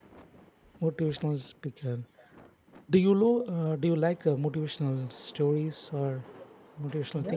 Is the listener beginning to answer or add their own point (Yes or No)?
Yes